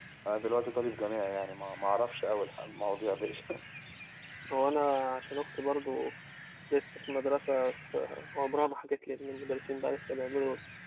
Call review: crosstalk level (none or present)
none